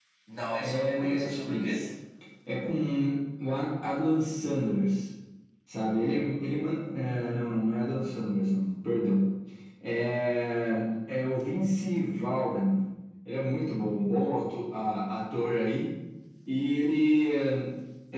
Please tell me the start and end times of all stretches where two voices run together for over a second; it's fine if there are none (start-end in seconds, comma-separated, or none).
0.6-1.8